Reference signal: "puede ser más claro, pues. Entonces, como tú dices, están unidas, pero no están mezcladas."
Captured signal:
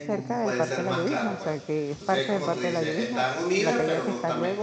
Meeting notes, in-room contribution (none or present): present